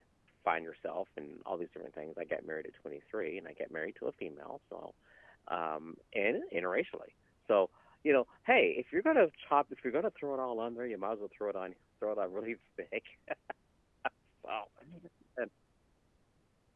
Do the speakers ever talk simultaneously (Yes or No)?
No